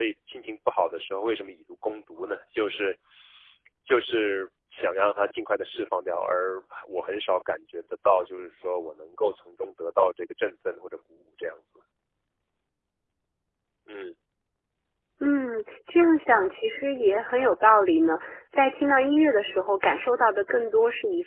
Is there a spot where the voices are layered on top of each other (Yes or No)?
No